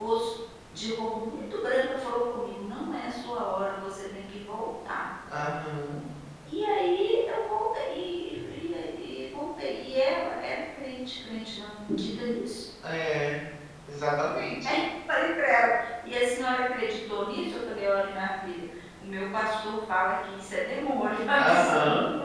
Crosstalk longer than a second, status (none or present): none